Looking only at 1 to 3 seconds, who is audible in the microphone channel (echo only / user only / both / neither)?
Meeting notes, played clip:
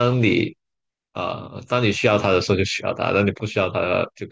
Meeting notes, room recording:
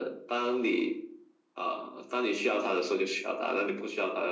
echo only